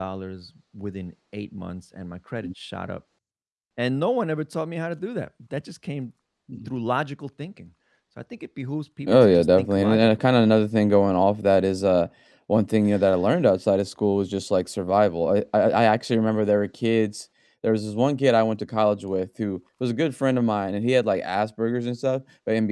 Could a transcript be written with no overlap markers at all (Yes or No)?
No